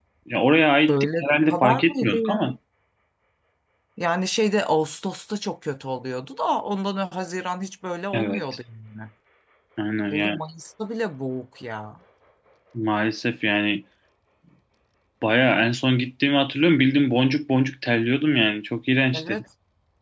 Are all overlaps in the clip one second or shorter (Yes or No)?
No